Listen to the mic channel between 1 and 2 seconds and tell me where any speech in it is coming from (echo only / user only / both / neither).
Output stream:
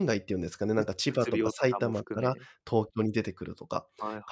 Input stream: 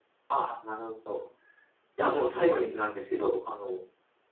user only